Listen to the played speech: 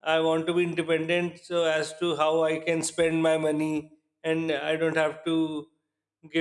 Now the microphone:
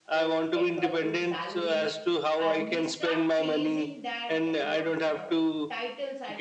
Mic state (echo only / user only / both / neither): both